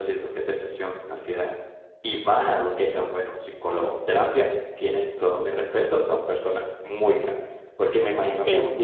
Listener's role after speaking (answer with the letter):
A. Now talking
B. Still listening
B